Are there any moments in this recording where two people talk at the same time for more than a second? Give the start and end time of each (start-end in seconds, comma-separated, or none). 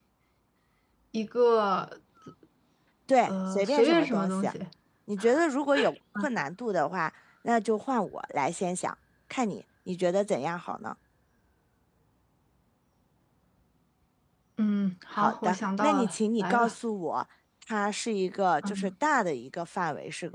3.3-4.5, 15.1-16.7